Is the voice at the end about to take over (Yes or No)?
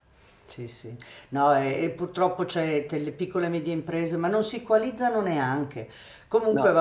No